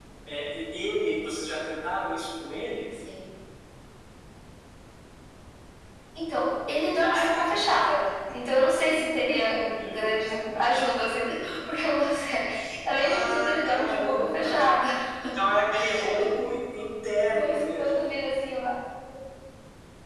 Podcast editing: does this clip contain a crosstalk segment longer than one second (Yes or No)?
Yes